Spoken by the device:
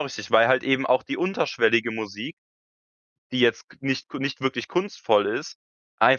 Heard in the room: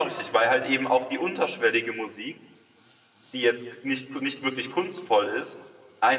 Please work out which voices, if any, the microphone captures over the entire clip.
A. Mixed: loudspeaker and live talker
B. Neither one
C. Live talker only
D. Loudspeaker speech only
D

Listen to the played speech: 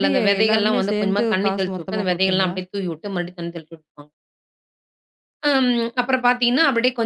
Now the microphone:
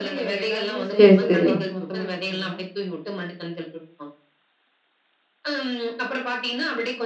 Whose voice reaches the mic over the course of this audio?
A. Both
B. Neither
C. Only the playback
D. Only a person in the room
A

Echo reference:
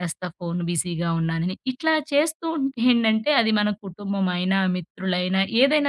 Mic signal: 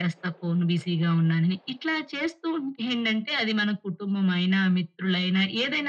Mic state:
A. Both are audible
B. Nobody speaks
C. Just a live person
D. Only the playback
D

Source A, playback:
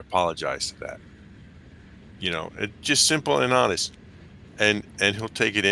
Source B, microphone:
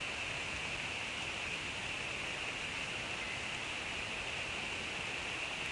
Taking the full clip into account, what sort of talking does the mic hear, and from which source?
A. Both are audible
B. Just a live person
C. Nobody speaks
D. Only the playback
C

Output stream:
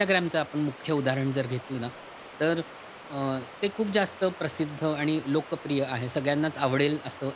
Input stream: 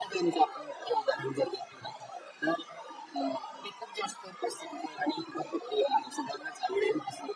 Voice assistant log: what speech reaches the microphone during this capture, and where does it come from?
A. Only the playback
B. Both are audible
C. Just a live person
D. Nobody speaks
A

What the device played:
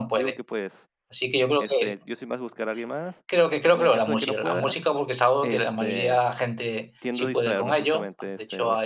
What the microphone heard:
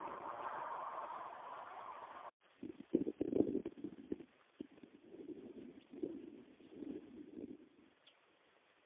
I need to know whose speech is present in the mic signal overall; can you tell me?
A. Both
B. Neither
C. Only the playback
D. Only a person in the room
B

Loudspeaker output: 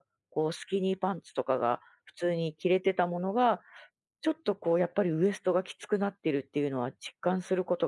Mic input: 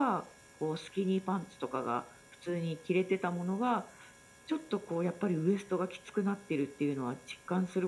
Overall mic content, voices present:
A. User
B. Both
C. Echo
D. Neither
C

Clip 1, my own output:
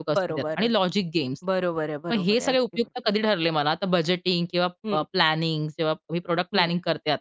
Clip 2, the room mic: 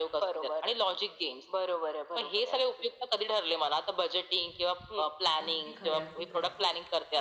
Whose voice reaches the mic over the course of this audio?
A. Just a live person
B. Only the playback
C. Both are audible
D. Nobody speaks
C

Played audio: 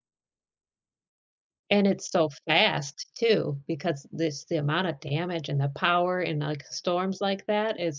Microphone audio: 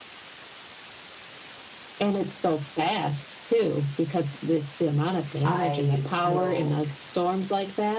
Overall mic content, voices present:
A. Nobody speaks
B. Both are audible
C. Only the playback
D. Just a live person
B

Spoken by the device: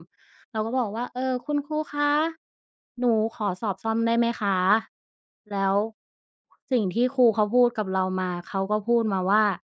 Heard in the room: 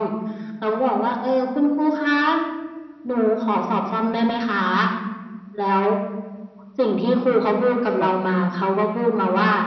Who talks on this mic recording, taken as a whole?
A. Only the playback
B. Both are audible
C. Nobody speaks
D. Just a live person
B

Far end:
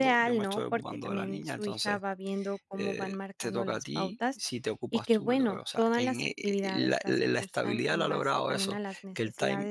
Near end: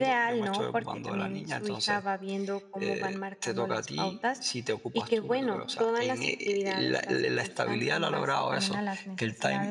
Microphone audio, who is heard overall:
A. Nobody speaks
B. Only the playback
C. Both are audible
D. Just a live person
B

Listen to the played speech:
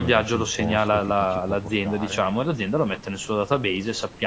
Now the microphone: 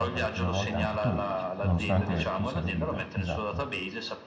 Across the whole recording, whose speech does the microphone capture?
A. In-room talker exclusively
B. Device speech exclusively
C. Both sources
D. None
C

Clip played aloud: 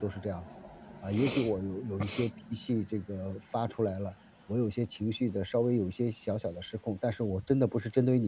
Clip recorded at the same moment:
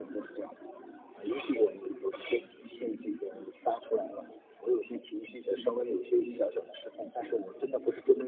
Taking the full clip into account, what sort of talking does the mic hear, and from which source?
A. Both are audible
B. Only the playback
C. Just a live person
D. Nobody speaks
B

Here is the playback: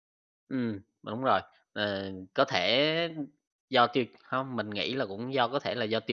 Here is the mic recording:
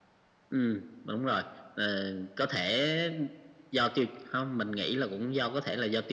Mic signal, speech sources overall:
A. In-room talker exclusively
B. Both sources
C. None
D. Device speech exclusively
D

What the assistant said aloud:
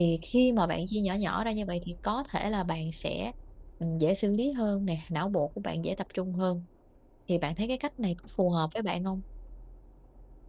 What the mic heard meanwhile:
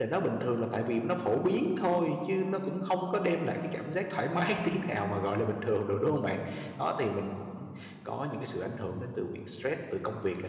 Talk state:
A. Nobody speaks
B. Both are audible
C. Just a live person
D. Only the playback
C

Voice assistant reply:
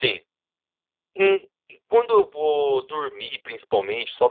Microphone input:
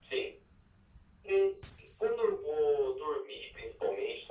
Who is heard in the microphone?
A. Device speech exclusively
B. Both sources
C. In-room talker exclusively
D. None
A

